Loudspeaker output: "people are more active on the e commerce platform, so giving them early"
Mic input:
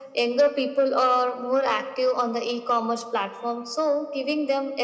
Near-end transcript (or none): none